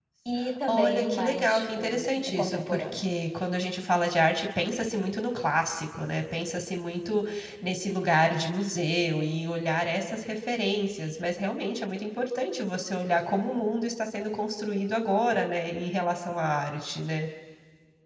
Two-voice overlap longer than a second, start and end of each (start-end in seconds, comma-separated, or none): 0.7-3.1